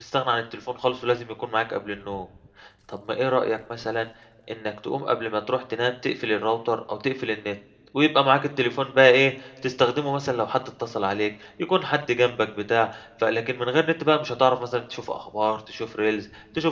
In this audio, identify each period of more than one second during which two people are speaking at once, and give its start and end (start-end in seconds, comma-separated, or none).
none